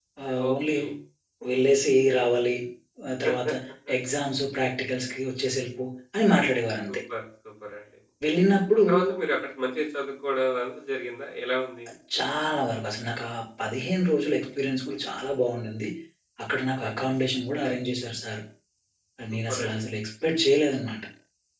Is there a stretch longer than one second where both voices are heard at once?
No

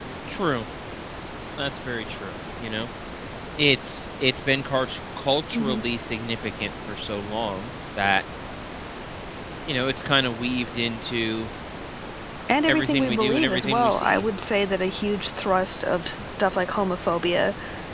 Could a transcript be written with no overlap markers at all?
No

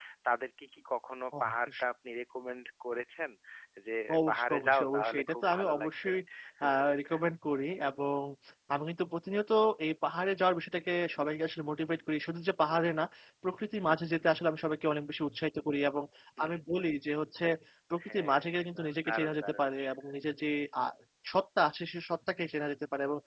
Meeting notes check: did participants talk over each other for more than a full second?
Yes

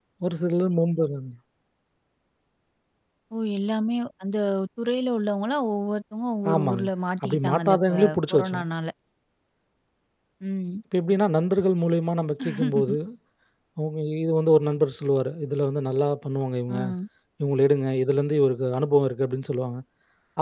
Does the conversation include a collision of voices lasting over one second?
Yes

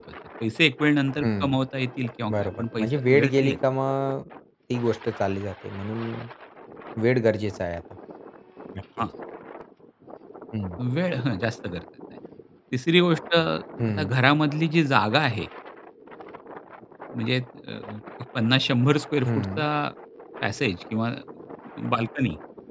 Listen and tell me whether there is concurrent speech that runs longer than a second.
Yes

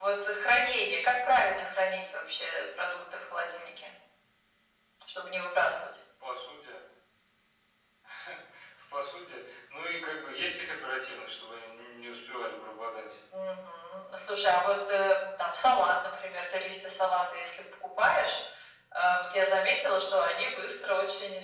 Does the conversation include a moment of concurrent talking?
No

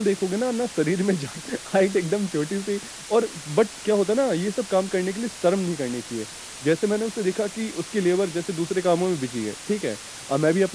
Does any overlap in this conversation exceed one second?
No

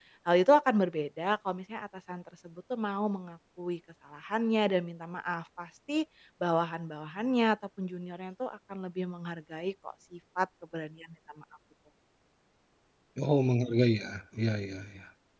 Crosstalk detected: No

